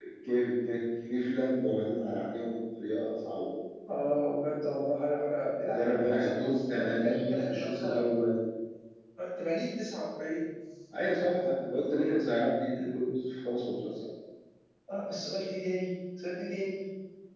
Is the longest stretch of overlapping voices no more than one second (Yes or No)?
No